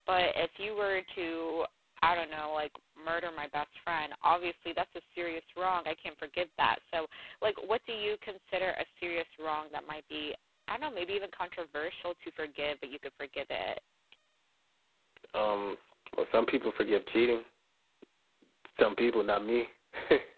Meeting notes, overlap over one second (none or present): none